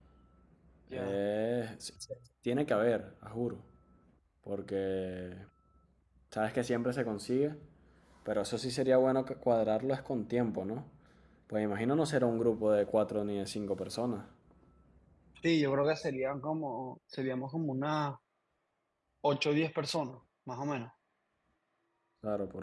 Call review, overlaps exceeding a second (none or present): none